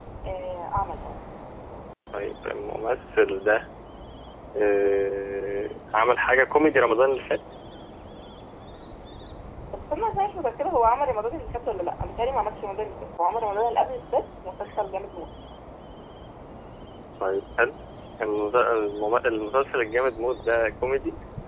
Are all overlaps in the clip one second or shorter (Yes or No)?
Yes